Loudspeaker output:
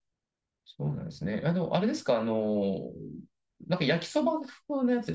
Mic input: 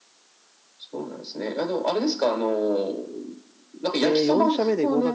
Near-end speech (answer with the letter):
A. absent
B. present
B